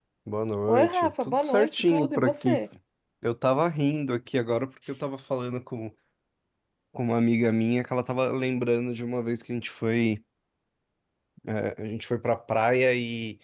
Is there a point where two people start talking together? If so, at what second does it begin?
0.7 s

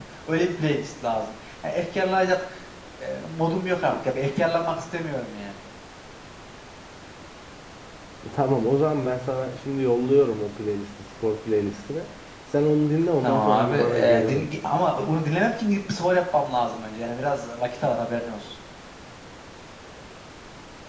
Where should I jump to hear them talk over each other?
13.2 s

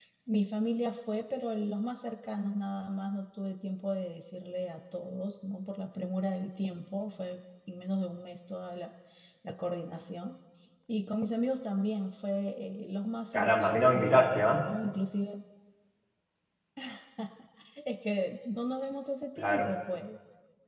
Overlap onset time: 13.4 s

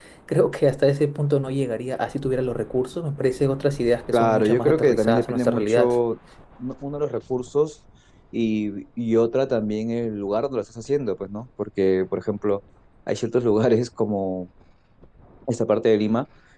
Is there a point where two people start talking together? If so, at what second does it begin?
4.1 s

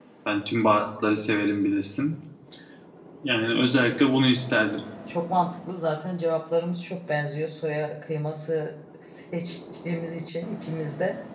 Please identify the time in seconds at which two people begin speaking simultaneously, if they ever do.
none

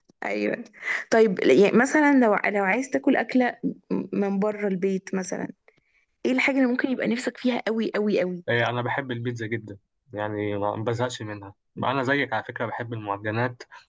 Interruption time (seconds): none

